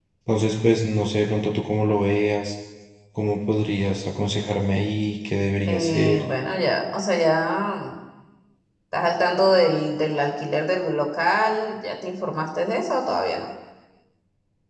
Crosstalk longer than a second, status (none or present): none